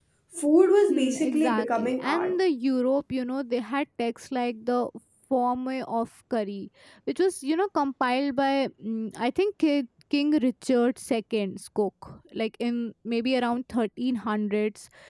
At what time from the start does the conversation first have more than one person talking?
0.9 s

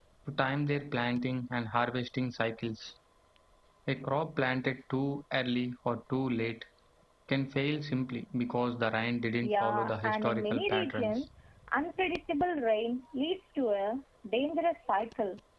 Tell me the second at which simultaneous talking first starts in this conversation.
9.4 s

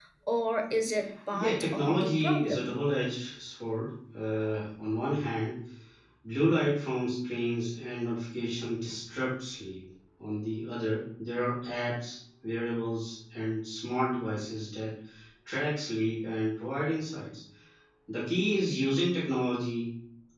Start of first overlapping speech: 1.3 s

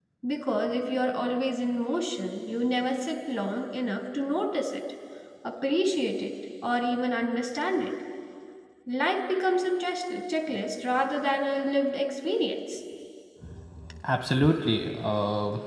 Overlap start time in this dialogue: none

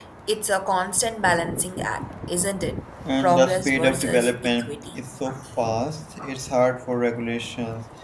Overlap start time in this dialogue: 3.0 s

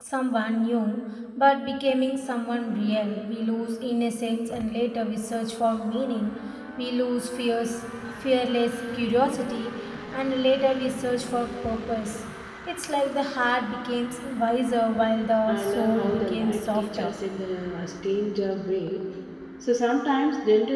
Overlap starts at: 15.5 s

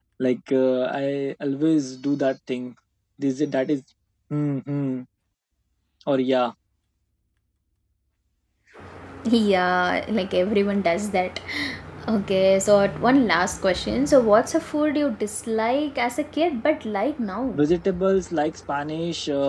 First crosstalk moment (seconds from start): none

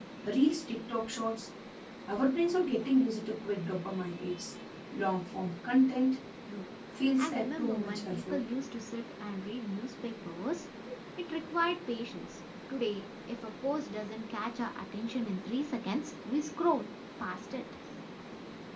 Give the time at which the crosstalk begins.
7.2 s

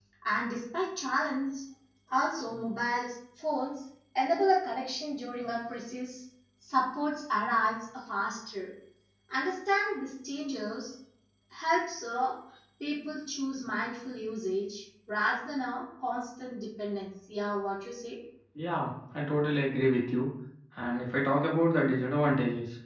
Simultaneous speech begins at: none

